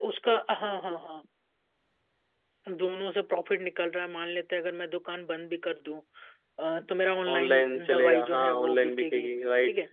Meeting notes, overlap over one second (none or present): present